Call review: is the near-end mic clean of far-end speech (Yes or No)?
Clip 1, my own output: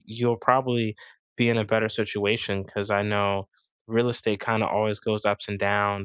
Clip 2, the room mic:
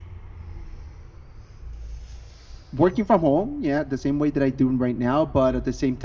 Yes